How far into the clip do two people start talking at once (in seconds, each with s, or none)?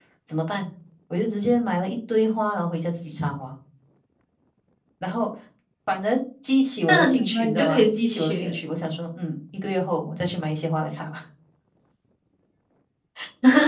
6.9 s